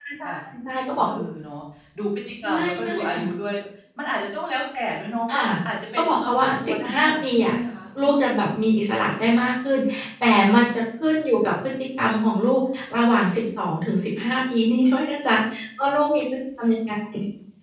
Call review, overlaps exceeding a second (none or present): present